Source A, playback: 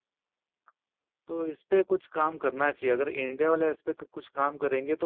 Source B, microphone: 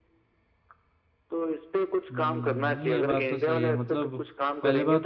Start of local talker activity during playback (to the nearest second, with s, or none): 2 s